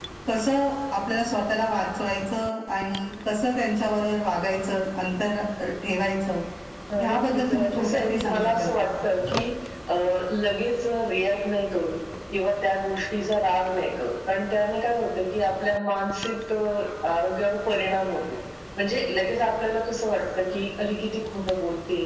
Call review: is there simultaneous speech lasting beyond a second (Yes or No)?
Yes